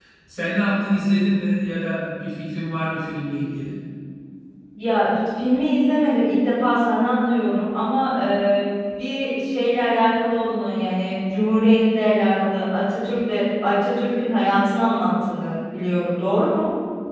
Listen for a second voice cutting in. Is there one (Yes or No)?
No